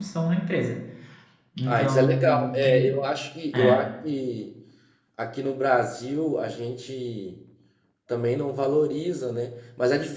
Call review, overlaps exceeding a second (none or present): present